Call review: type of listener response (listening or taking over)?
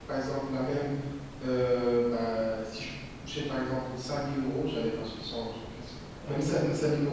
listening